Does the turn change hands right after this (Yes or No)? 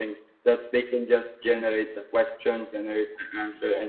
No